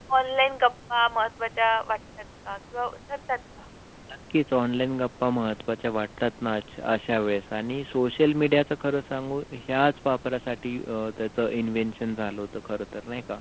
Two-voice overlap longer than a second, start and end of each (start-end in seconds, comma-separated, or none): none